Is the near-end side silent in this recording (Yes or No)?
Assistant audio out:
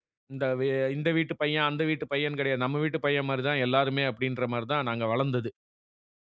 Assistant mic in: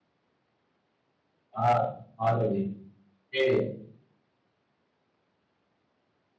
No